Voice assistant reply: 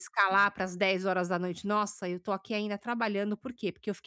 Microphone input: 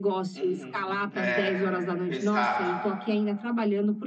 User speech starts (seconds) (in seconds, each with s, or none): 0.3 s